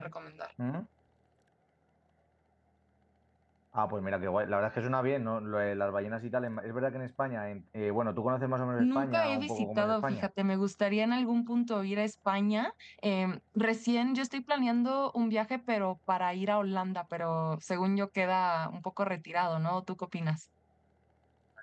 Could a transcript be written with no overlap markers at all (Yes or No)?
No